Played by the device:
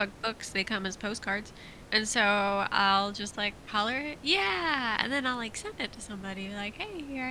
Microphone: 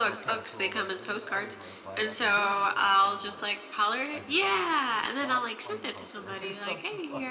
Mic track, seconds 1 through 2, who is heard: both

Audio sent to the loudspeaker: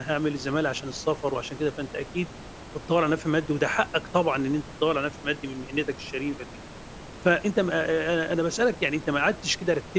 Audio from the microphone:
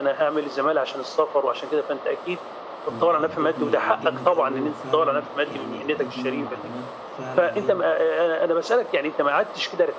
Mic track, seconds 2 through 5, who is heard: both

